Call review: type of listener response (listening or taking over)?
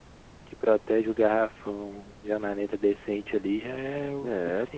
taking over